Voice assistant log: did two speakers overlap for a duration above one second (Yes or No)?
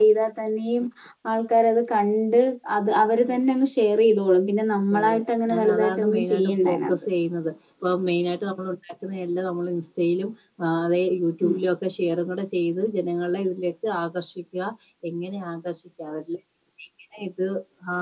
Yes